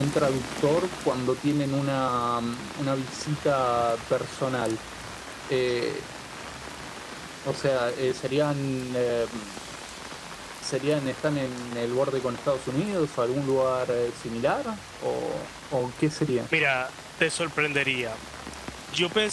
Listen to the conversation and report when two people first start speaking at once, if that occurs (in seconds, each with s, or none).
none